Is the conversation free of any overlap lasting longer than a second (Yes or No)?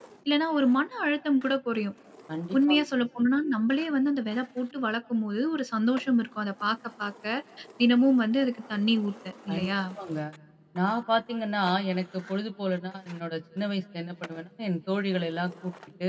Yes